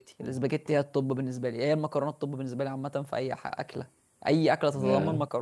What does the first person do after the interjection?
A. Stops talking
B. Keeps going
B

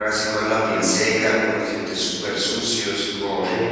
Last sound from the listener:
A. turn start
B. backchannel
A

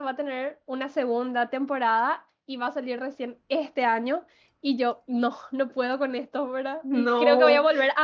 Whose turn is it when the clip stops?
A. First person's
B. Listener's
A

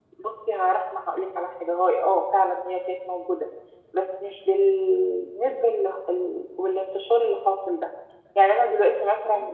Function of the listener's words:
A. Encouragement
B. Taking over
A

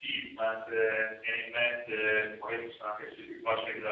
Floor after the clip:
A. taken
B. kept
B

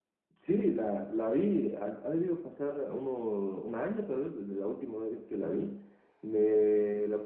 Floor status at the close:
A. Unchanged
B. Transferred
A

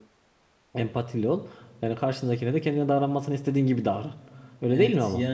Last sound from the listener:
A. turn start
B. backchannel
A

